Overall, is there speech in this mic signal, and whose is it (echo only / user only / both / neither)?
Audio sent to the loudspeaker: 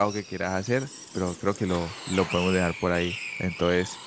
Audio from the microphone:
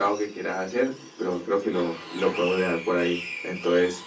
echo only